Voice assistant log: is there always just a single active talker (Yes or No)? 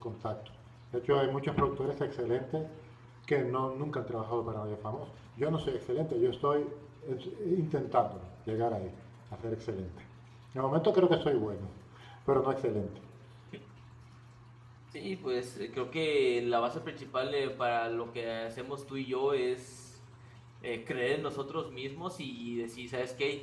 Yes